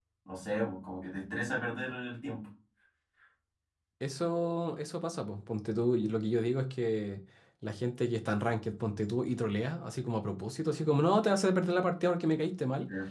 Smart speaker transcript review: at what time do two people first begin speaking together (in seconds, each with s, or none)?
none